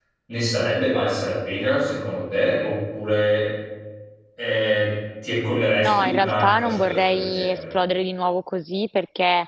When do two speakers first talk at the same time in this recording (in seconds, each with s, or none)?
5.8 s